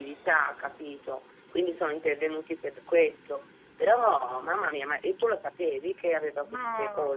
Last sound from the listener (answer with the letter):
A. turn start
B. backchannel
A